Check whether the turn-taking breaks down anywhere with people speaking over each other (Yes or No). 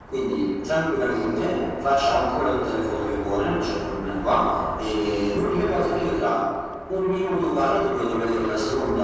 No